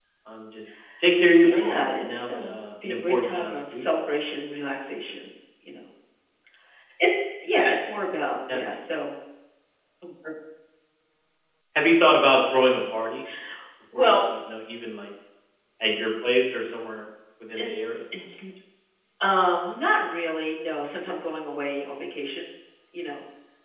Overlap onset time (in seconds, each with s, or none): 1.4 s